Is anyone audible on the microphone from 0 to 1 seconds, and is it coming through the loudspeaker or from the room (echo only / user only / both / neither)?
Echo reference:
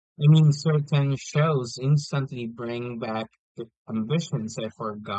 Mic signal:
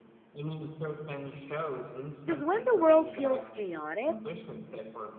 echo only